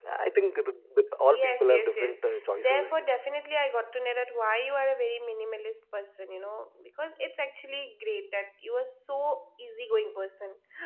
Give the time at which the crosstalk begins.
1.3 s

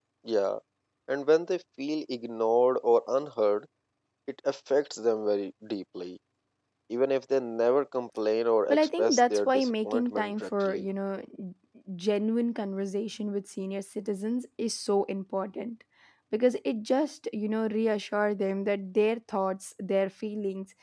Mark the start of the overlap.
8.7 s

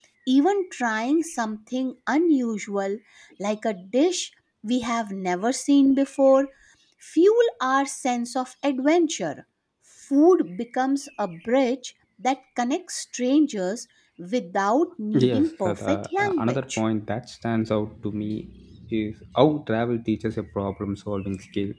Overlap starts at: 15.1 s

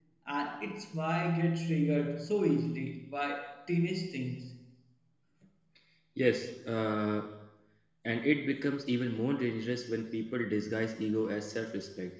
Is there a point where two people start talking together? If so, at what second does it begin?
none

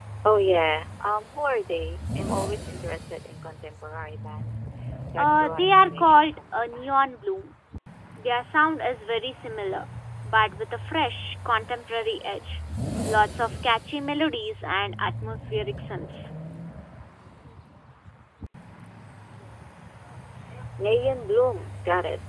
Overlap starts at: 5.2 s

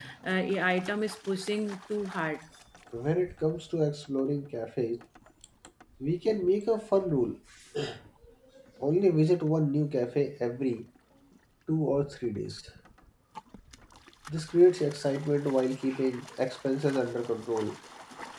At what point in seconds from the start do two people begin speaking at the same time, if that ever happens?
none

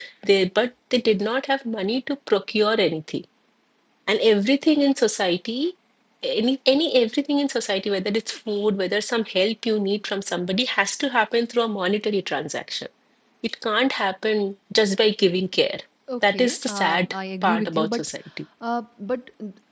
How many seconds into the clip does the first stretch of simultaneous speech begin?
16.3 s

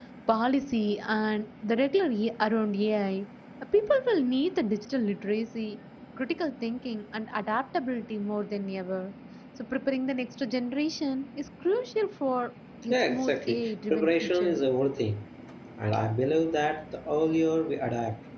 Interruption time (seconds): 12.9 s

